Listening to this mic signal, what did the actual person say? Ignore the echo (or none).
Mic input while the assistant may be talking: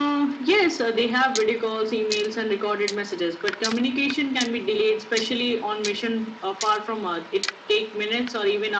none